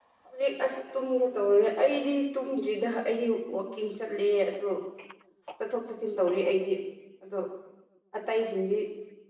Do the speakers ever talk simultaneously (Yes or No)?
No